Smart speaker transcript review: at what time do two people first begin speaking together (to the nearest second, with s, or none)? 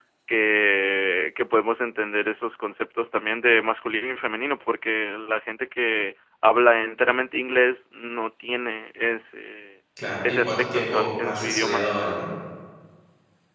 10 s